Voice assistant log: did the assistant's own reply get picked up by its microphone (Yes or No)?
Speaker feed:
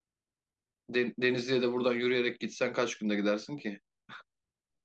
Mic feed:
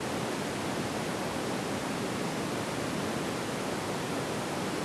No